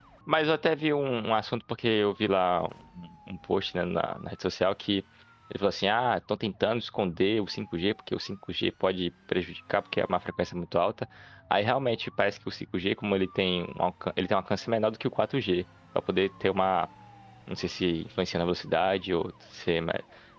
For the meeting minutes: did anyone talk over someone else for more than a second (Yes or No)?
No